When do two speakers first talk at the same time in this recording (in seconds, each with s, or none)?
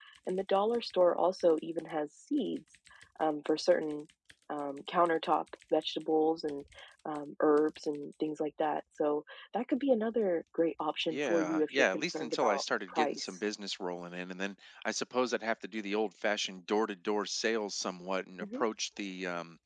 11.1 s